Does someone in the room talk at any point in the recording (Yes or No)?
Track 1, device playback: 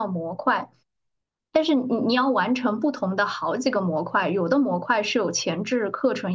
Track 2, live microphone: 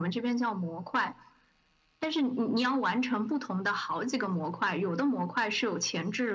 No